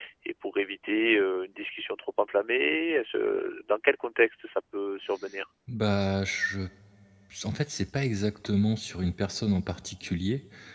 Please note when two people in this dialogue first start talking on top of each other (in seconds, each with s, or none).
none